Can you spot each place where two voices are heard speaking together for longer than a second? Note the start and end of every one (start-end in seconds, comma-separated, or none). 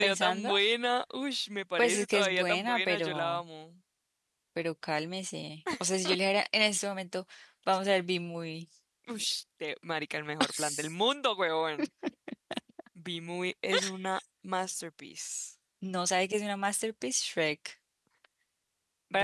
1.8-3.4